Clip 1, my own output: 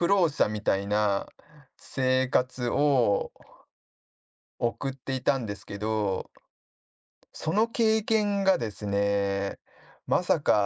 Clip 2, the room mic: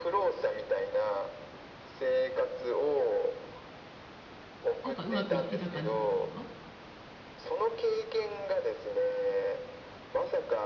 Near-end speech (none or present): present